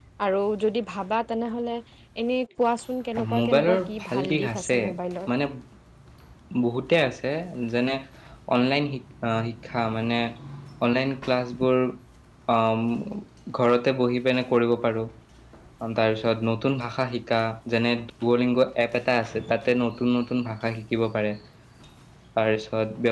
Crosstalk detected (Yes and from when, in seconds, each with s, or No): Yes, from 3.2 s